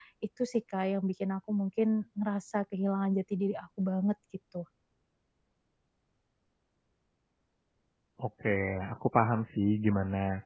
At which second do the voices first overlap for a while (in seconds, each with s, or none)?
none